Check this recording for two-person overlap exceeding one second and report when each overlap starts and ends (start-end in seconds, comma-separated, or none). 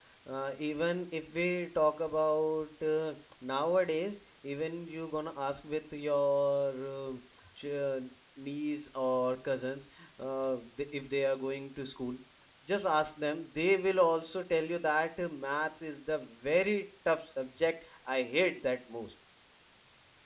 none